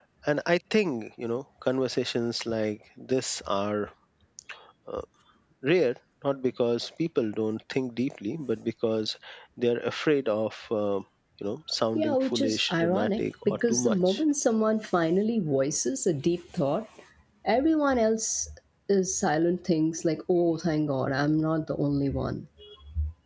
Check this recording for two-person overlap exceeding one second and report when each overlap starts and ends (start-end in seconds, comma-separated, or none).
11.9-14.2